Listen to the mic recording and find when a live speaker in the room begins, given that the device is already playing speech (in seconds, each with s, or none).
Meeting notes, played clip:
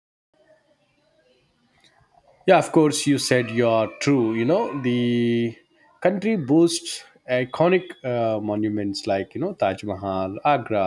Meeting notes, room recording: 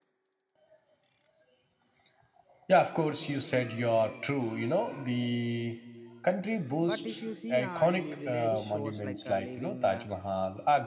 6.9 s